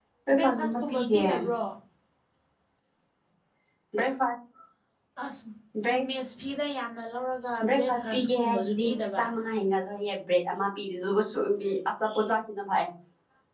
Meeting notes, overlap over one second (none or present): present